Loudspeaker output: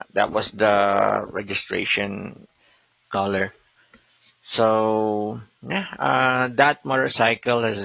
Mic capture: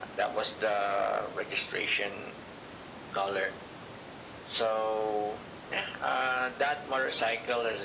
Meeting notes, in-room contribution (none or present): none